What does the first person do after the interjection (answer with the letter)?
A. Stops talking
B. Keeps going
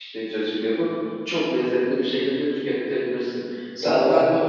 B